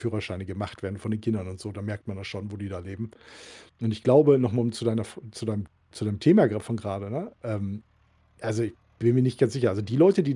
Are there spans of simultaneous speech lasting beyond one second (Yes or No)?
No